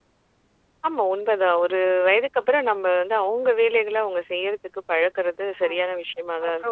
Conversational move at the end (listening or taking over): taking over